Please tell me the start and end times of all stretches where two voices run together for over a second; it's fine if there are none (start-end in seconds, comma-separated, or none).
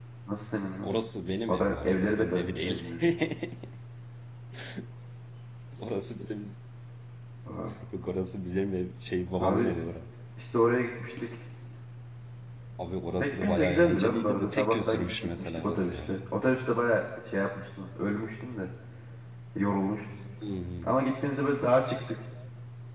1.5-2.8, 13.2-16.1